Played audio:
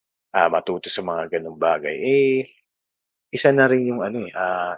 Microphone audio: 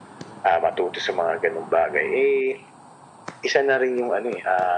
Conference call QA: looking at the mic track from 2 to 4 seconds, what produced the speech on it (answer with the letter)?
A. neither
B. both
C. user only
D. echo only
D